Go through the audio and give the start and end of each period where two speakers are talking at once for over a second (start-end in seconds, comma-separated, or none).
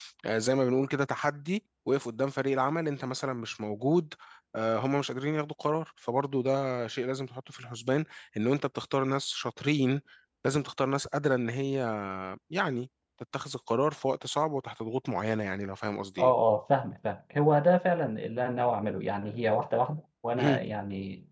none